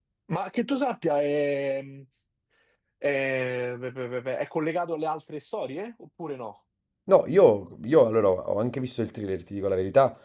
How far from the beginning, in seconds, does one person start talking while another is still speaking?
none

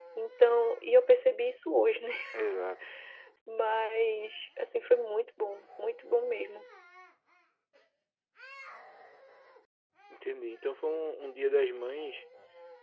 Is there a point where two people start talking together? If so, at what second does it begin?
none

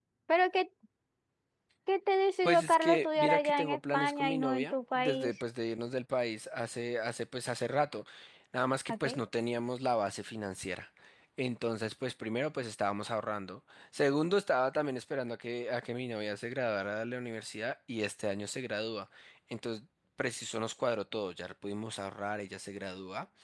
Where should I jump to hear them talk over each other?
2 s

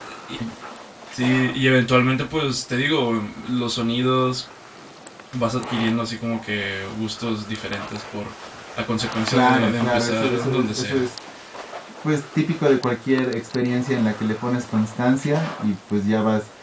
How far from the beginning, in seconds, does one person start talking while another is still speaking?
9 s

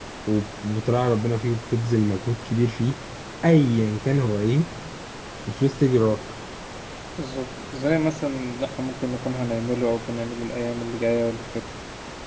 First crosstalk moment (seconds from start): none

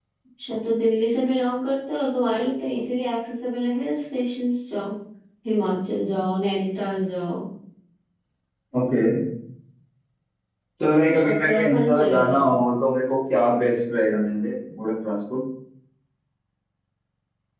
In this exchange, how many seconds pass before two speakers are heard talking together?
11 s

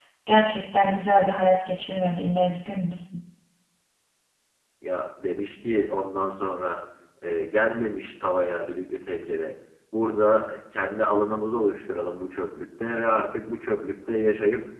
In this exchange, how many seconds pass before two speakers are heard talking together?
none

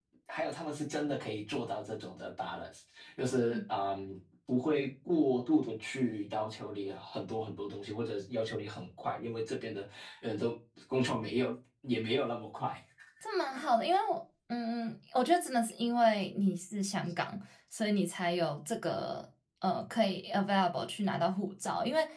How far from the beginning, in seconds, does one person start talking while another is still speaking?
none

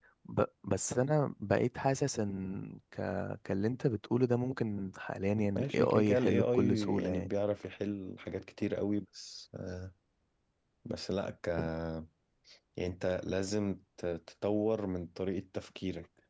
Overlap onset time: 6 s

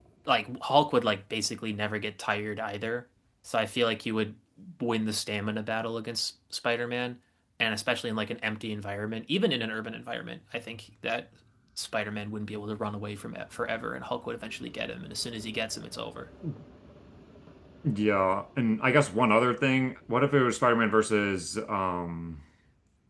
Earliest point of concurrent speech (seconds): none

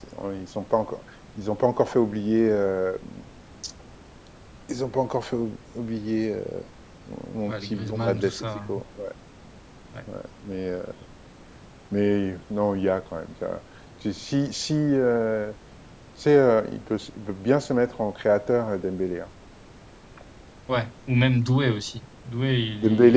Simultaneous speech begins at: 7 s

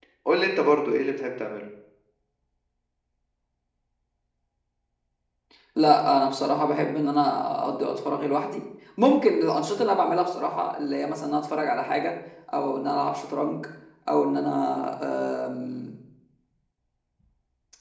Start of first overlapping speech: none

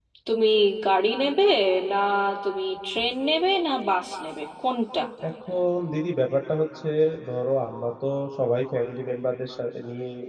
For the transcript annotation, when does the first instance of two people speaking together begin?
none

